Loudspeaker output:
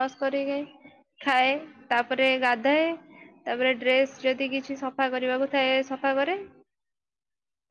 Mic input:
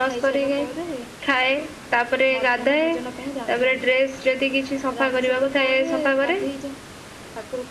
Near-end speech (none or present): present